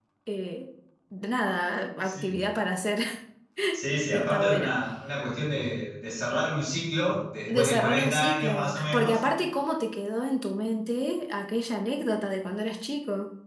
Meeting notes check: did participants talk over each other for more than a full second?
Yes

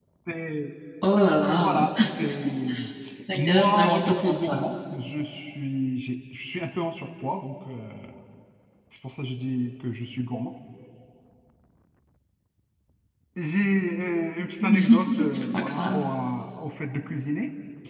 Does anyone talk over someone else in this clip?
Yes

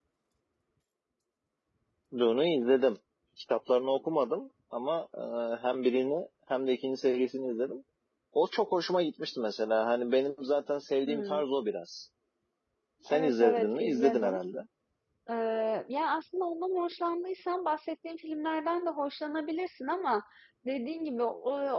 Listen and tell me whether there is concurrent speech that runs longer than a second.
Yes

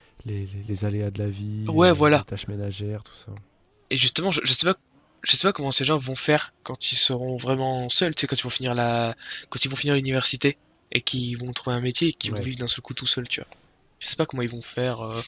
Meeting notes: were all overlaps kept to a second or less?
Yes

